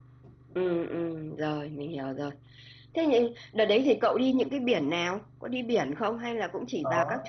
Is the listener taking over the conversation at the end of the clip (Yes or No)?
Yes